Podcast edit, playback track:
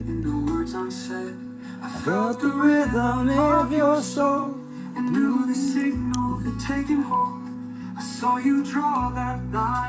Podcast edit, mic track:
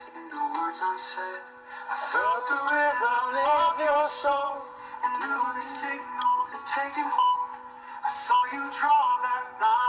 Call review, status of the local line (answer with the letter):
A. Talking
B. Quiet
B